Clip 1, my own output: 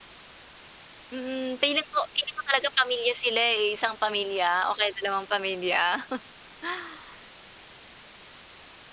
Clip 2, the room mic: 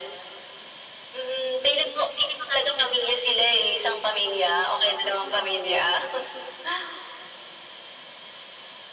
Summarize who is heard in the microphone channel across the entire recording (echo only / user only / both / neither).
both